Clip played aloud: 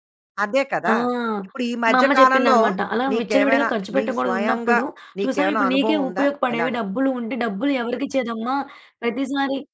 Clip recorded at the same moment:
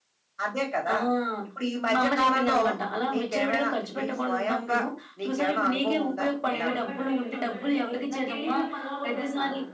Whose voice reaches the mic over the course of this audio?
both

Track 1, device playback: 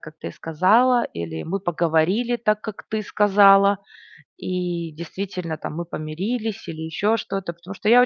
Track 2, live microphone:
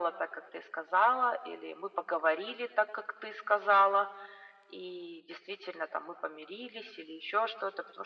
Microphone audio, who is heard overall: echo only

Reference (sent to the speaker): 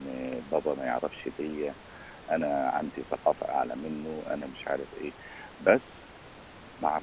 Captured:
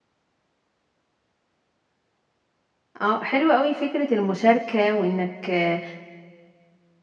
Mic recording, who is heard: user only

